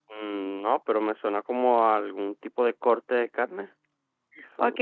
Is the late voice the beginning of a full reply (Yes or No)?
Yes